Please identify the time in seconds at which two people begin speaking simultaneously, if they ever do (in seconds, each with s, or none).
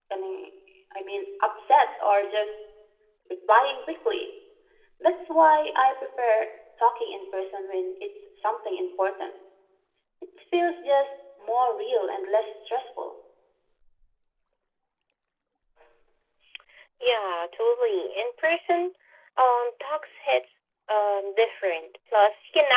none